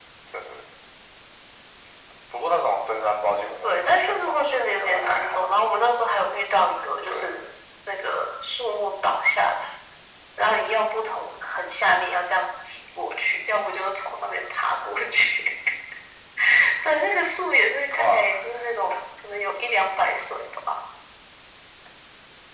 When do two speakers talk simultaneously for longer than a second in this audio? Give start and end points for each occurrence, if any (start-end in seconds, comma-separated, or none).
3.6-5.4